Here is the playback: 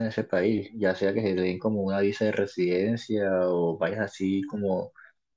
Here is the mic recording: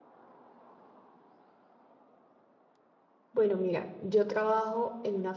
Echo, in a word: none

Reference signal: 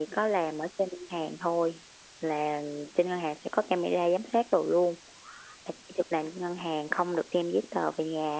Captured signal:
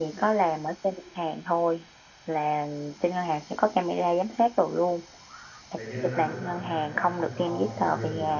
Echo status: present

